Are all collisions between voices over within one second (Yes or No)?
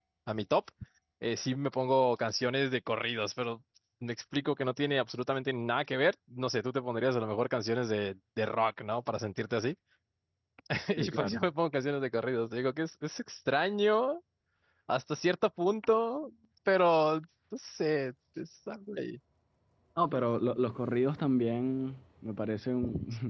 Yes